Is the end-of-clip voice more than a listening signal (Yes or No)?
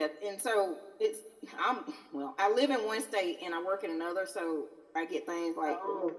No